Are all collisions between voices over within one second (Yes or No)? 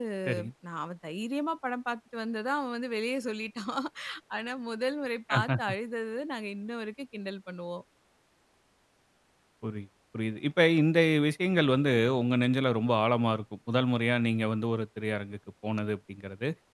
Yes